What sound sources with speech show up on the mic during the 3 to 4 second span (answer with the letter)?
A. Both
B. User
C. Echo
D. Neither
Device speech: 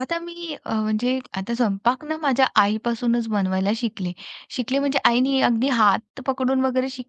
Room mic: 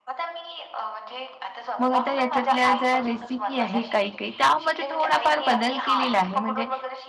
A